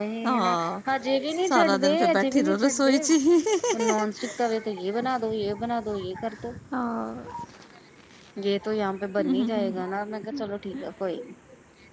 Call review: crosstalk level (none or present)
present